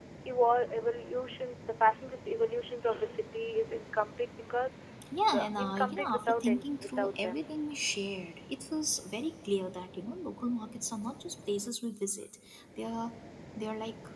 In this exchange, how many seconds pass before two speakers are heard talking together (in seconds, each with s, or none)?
5.3 s